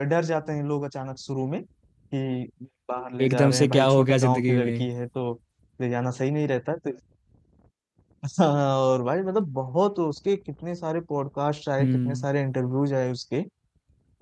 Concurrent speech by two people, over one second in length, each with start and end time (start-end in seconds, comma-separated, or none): 3.2-4.9